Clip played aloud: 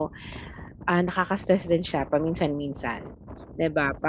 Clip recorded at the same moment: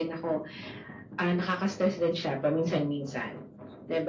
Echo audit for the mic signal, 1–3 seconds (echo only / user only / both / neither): echo only